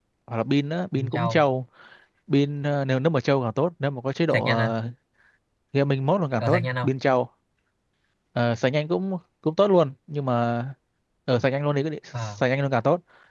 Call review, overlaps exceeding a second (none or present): none